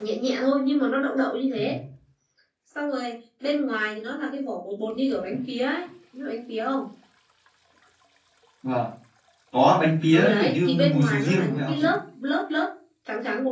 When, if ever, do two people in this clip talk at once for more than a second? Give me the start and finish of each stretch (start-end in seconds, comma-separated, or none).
10.1-12.0